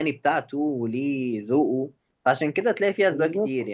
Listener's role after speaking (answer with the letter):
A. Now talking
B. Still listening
B